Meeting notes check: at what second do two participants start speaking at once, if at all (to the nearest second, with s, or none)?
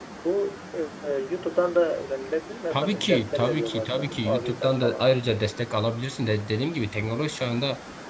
3 s